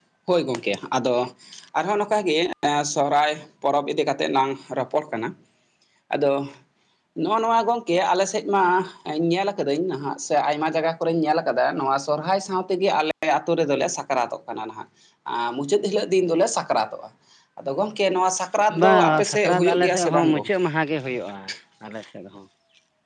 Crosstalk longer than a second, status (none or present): present